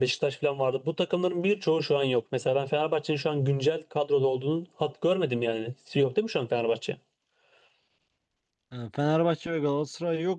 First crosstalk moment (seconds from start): none

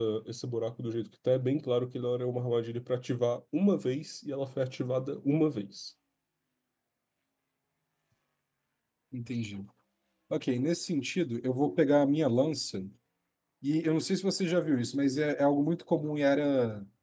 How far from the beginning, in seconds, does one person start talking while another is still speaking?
none

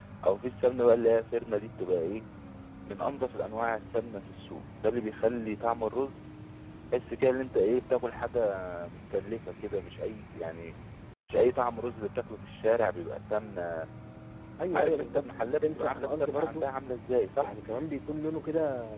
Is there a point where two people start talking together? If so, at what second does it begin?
14.7 s

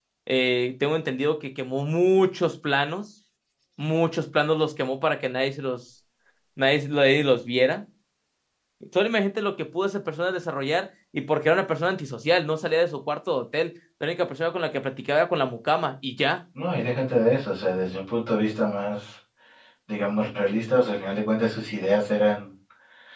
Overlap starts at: none

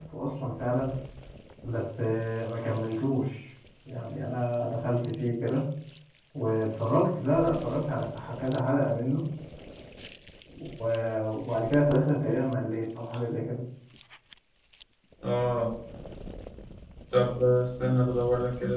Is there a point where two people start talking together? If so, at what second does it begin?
none

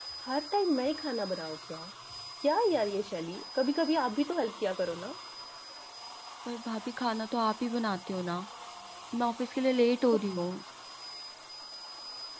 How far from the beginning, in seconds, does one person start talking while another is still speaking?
none

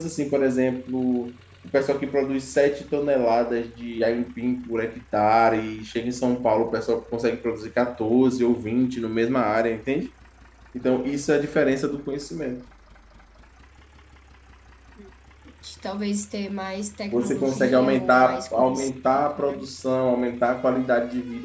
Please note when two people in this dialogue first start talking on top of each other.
17.1 s

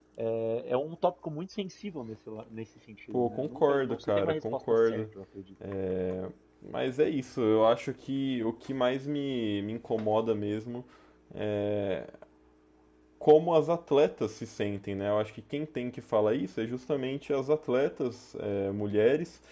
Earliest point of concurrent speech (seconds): 3.1 s

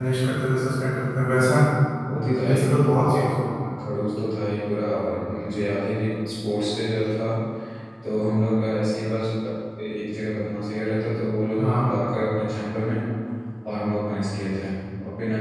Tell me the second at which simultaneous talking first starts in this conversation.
2.1 s

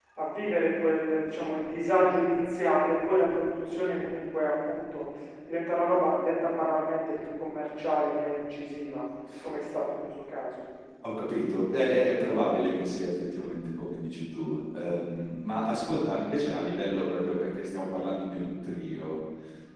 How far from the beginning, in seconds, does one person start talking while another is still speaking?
none

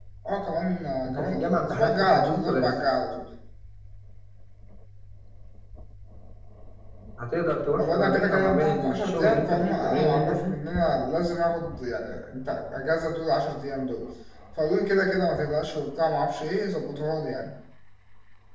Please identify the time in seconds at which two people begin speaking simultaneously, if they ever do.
1.1 s

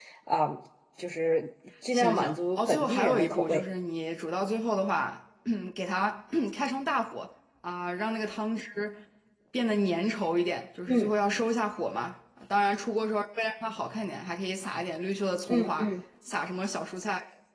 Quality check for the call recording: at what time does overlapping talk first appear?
1.9 s

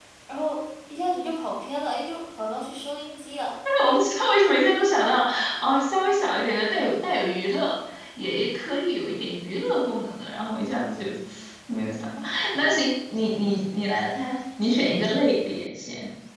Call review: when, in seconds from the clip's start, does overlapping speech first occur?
none

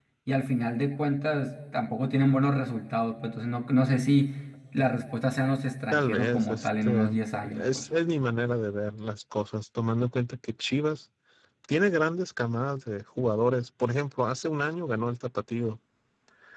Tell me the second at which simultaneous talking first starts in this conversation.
5.9 s

